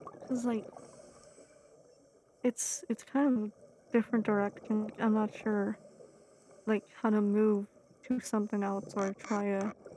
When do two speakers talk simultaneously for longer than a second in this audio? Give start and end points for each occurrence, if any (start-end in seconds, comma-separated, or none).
none